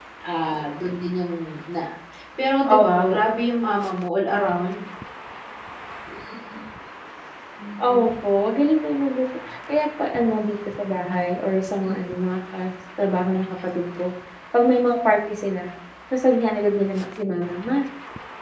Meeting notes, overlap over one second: none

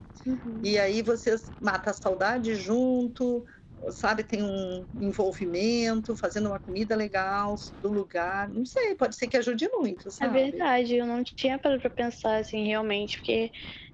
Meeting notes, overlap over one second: none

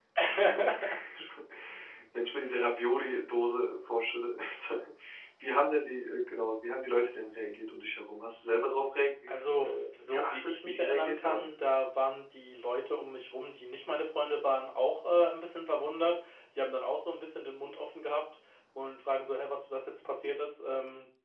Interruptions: present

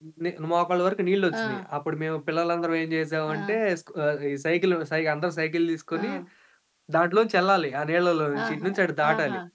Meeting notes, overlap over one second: none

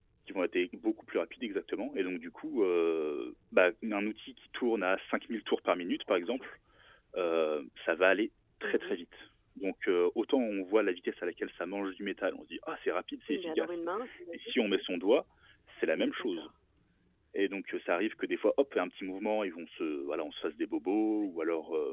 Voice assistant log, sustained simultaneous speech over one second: none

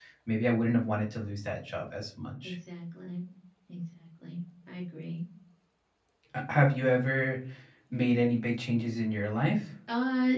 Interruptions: none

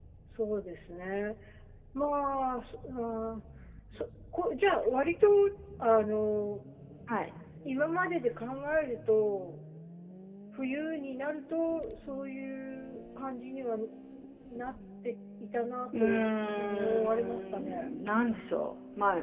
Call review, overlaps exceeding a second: present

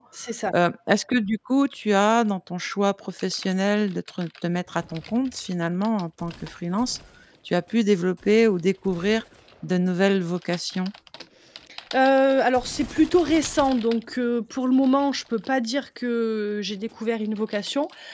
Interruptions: none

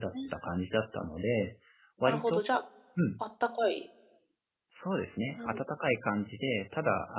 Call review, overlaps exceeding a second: none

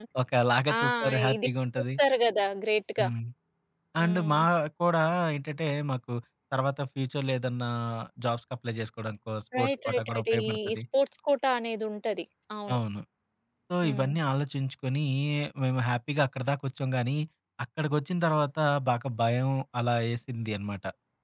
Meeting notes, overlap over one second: present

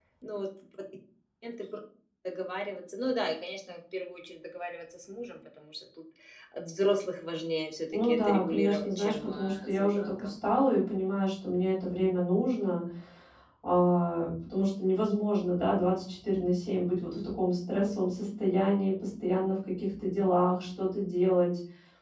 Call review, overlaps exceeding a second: present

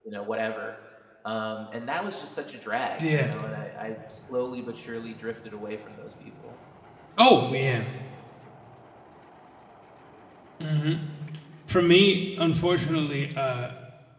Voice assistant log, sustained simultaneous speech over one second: none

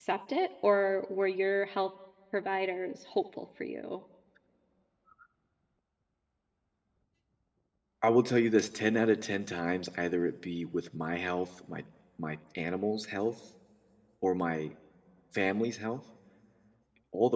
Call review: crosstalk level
none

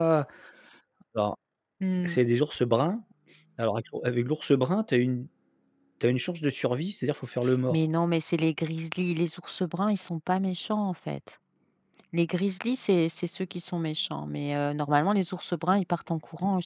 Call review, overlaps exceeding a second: none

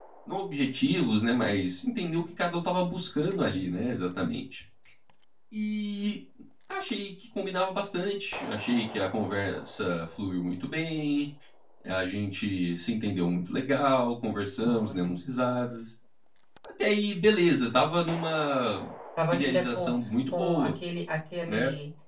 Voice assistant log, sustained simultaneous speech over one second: none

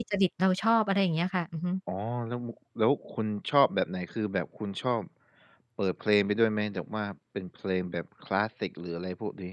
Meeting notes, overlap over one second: none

